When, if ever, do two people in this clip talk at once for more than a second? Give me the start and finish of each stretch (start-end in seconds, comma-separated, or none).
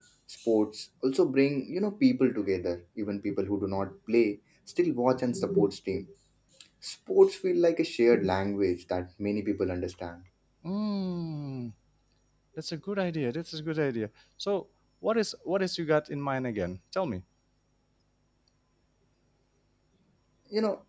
none